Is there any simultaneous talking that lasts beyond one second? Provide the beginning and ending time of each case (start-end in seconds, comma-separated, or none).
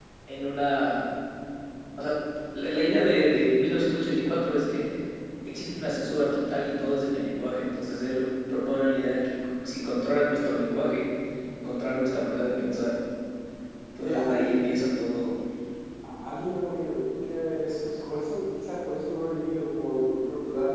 none